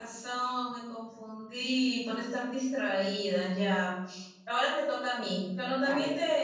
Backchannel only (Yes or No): Yes